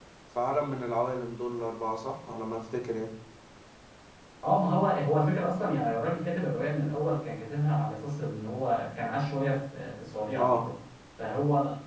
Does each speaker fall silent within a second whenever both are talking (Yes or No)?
Yes